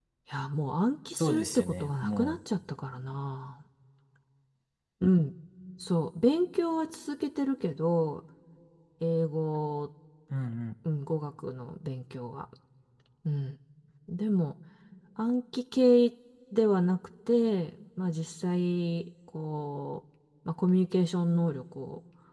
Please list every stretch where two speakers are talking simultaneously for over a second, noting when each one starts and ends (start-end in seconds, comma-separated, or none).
1.2-2.4